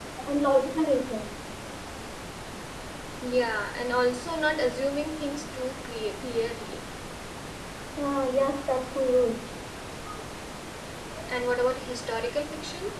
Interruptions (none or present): none